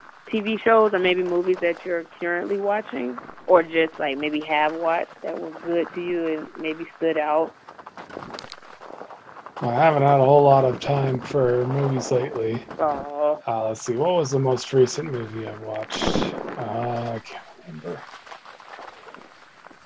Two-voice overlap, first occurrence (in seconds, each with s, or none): none